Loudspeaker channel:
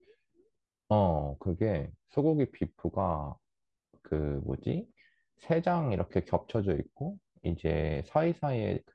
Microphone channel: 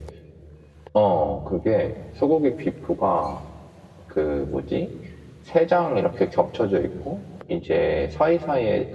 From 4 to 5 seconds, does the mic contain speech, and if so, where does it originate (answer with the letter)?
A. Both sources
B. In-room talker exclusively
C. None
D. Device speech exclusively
D